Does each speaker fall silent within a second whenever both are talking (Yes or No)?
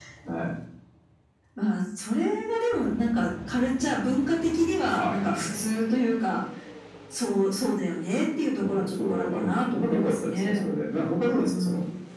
No